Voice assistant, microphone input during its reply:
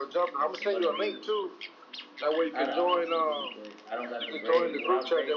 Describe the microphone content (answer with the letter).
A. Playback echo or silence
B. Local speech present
B